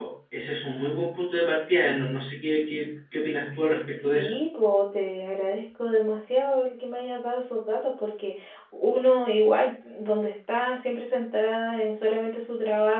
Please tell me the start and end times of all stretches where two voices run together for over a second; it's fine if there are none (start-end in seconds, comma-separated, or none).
none